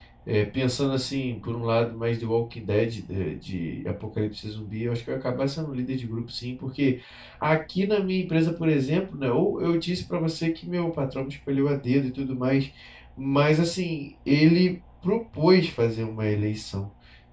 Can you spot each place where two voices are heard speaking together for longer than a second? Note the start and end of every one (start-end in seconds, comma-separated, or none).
none